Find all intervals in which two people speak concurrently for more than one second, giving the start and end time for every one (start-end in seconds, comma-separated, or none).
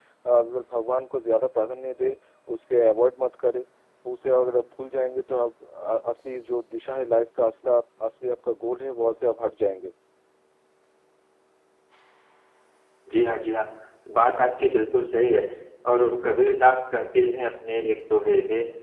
none